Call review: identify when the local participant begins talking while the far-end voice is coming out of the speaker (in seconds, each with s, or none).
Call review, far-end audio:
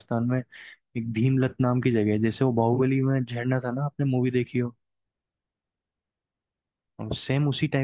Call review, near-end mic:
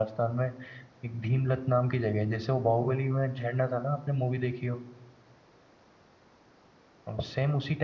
none